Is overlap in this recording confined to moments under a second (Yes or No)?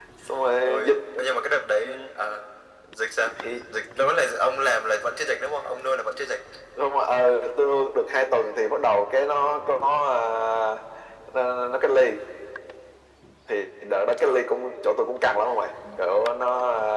Yes